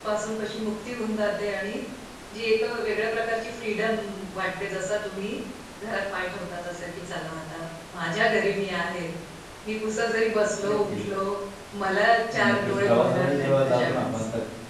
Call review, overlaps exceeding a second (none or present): present